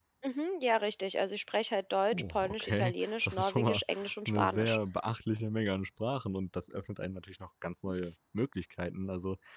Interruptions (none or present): present